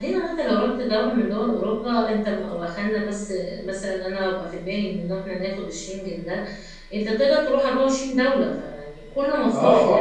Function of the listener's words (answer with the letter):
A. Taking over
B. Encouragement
A